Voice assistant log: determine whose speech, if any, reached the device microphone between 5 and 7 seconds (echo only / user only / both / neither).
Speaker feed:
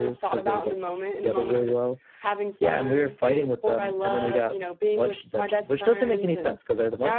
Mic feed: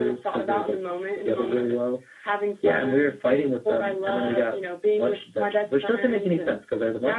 echo only